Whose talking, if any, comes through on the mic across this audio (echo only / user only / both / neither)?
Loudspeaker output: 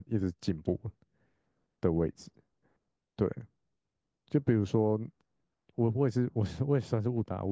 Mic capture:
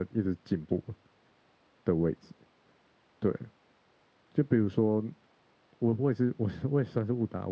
echo only